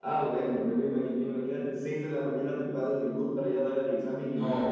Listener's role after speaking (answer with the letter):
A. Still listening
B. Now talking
B